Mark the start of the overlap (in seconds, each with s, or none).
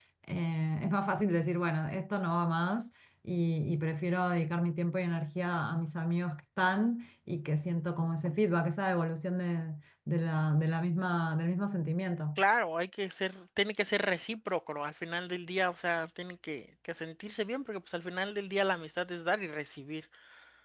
none